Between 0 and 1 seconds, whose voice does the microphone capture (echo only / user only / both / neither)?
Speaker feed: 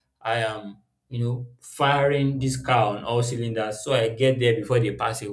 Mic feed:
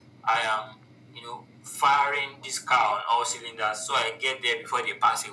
echo only